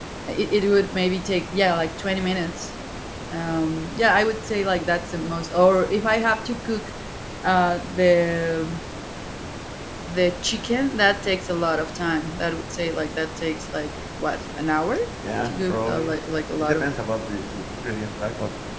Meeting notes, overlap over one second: present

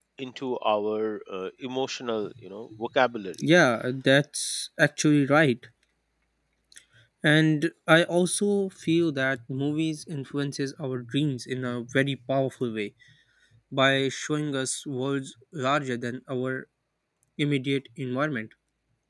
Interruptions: none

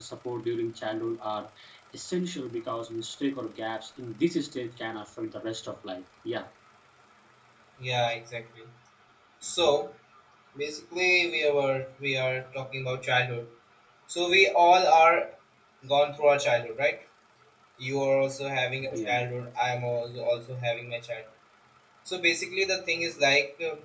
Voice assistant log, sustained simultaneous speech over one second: none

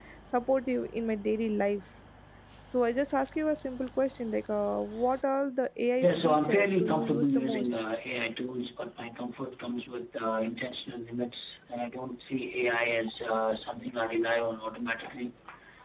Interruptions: present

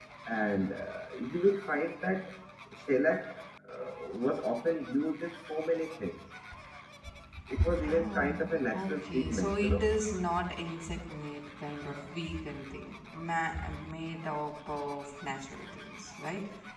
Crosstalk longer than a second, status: present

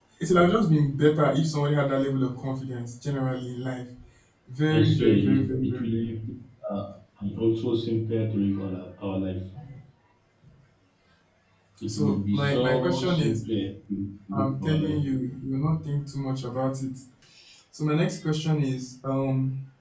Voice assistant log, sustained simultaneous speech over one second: present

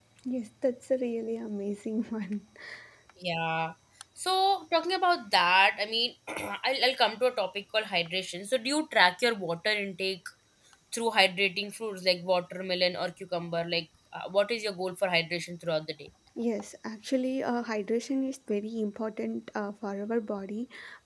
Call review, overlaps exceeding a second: none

